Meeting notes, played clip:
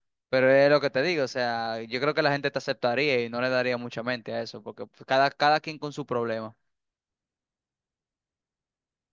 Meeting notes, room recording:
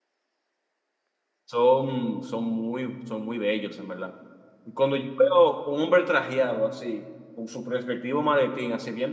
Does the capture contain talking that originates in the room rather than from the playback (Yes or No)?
Yes